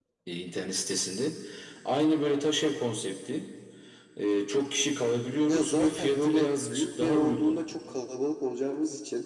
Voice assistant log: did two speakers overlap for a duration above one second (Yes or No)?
Yes